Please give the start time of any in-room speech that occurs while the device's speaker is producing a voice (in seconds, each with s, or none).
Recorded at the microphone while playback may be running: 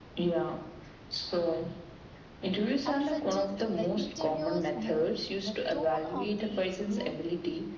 2.8 s